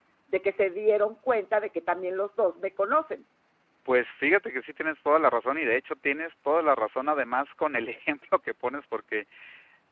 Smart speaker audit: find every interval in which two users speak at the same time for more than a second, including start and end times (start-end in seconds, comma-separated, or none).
none